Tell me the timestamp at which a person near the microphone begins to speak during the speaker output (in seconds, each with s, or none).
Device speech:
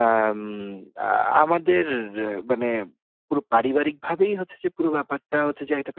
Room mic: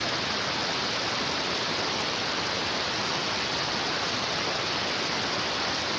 none